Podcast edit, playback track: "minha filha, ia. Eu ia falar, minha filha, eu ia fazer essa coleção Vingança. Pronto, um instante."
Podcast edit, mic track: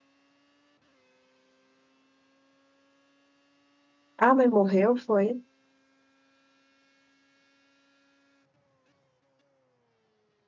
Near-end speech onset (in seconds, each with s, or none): 4.2 s